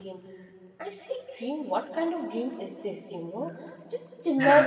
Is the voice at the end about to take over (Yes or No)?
No